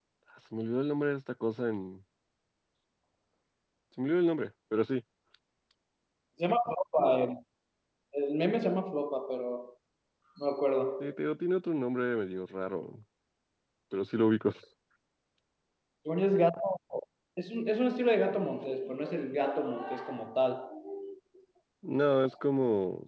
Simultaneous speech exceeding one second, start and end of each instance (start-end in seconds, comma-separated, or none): none